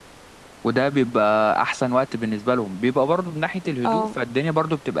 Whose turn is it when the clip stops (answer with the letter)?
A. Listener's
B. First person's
B